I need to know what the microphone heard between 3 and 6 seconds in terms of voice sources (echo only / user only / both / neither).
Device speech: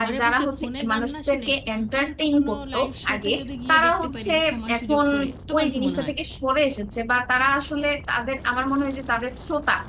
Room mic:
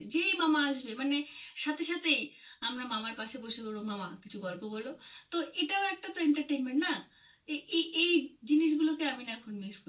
user only